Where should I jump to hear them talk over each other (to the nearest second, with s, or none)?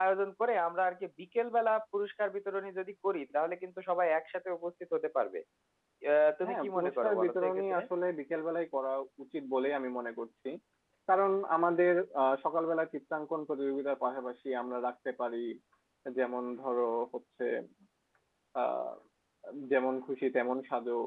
6 s